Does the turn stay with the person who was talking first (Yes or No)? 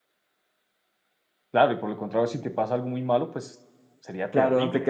No